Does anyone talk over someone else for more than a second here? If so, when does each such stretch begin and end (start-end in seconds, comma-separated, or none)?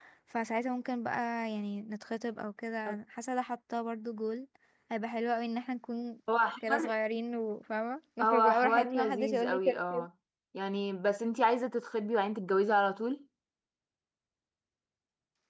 8.2-10.1